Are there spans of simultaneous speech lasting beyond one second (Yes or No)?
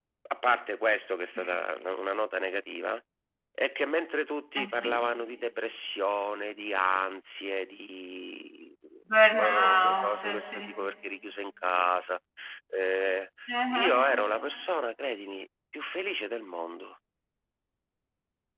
Yes